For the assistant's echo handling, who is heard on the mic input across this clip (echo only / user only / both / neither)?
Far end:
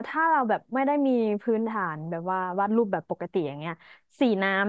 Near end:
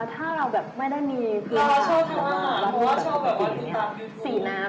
both